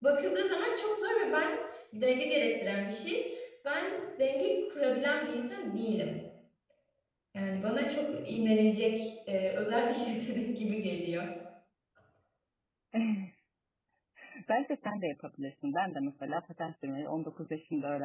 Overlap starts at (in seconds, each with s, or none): none